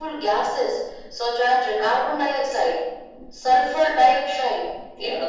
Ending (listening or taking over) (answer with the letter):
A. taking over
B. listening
B